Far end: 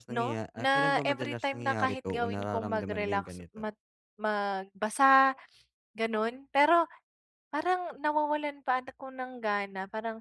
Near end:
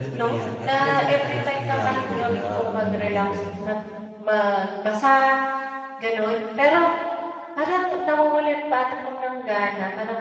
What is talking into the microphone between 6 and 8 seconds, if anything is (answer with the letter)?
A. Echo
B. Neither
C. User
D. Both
A